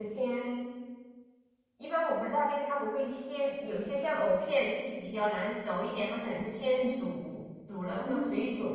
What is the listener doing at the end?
listening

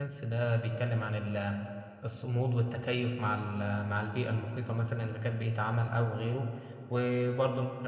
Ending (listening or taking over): listening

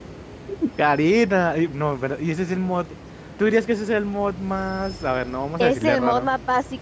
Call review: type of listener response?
taking over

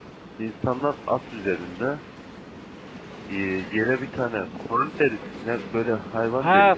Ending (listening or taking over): taking over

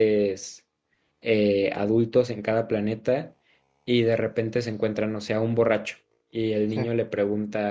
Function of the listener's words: listening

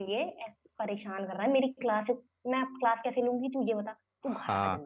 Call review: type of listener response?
taking over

